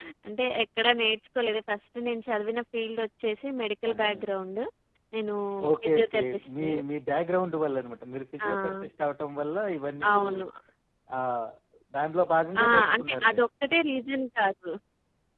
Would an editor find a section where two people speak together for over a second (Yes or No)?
Yes